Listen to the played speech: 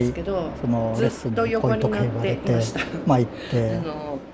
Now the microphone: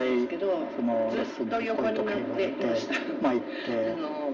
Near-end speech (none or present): none